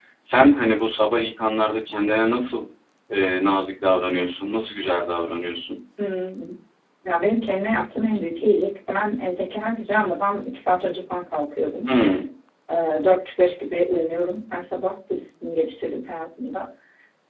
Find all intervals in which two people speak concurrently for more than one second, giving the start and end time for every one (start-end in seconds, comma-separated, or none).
none